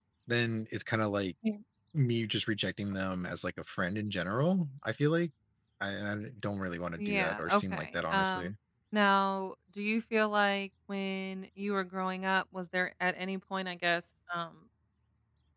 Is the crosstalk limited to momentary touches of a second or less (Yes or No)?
No